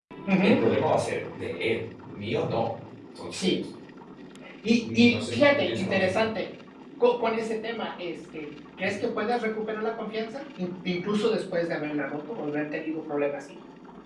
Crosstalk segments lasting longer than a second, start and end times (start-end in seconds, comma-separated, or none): 4.9-6.2